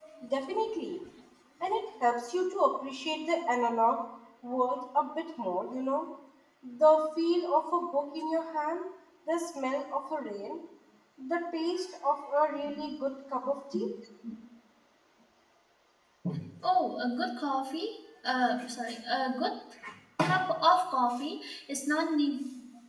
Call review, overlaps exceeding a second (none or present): none